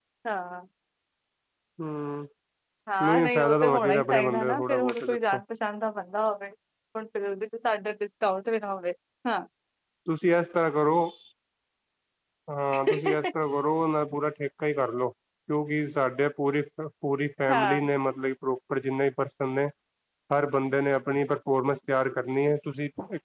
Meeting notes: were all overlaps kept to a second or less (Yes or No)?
No